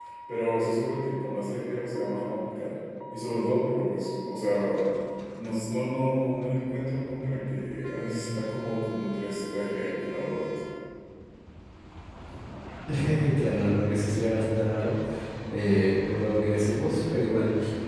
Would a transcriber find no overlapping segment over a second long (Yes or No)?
Yes